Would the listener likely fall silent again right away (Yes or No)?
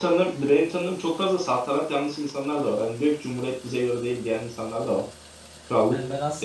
No